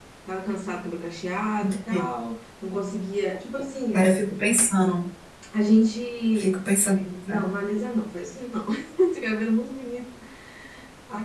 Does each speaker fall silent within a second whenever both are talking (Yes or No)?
Yes